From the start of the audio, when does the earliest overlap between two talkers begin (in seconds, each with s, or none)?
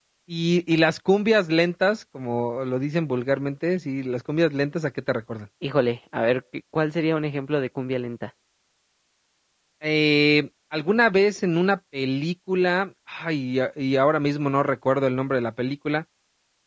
none